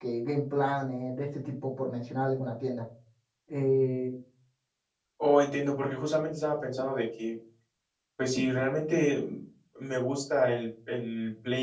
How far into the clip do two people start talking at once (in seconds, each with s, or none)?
none